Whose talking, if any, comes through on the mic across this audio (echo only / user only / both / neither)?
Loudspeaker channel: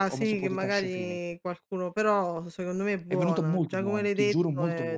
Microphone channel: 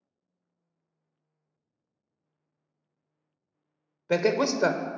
user only